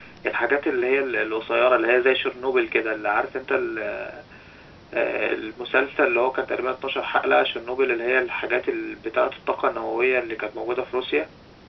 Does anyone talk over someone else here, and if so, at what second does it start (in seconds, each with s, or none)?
none